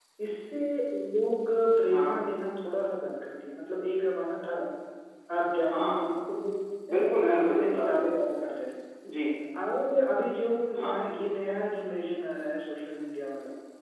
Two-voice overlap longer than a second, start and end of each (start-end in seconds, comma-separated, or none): 6.9-8.1